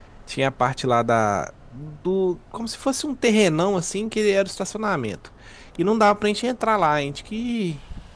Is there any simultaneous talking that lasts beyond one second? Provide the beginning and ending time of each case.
none

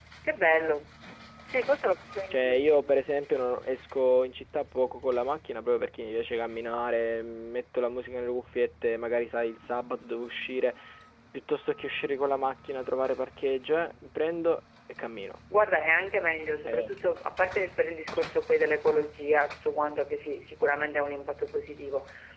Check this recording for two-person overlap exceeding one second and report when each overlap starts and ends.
none

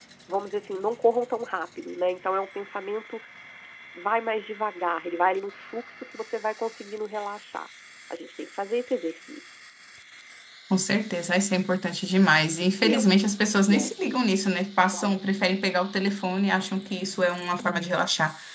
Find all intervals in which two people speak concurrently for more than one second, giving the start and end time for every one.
none

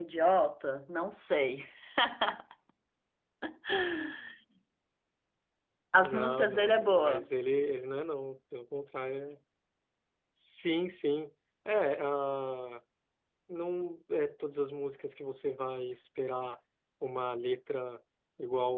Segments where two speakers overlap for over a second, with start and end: 6.0-7.3

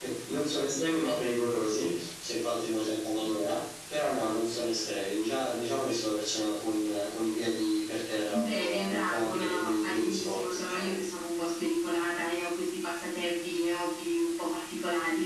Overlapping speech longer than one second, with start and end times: 8.3-11.0

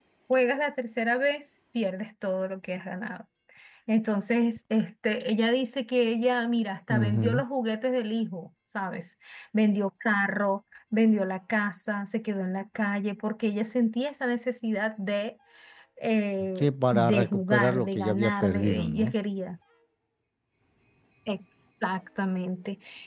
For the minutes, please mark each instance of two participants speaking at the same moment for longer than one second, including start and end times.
16.6-19.1

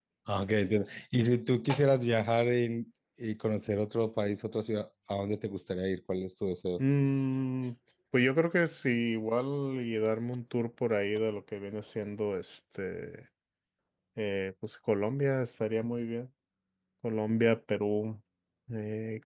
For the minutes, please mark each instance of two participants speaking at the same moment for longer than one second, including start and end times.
none

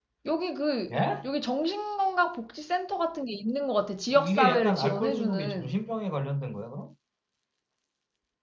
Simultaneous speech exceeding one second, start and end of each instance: 4.1-5.8

